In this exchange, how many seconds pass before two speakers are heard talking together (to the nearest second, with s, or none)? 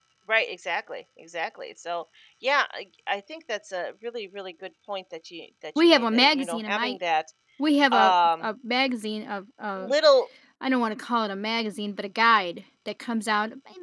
6 s